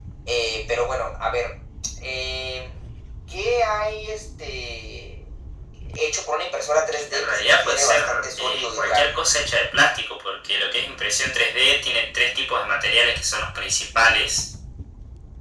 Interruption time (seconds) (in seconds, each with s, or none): 7.1 s